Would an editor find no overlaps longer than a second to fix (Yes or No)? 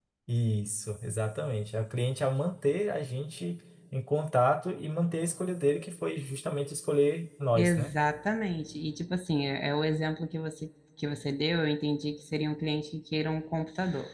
Yes